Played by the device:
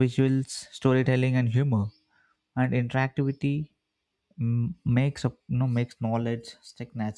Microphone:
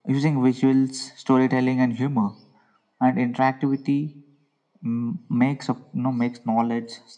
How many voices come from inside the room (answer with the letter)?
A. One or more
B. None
B